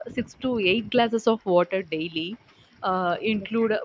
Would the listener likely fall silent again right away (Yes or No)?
Yes